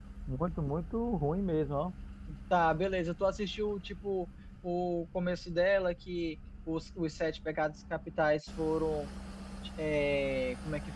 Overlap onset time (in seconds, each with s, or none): none